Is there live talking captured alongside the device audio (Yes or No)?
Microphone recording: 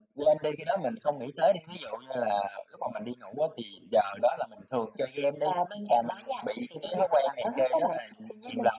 No